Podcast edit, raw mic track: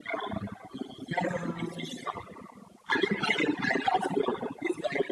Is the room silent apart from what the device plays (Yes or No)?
No